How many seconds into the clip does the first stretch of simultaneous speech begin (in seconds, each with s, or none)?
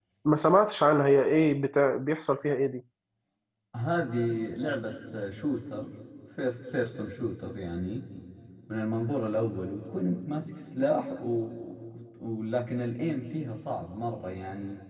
none